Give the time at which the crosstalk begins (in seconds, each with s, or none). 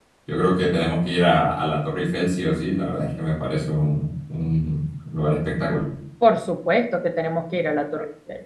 none